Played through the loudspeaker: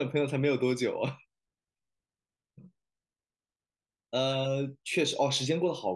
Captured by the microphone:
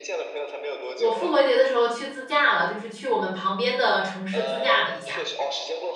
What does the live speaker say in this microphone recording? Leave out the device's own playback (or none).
我复活节的时候去自驾了，就是去我们旁边的城市自驾了一下。